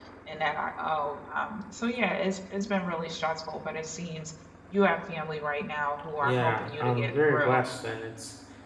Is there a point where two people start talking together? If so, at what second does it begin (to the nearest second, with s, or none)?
6 s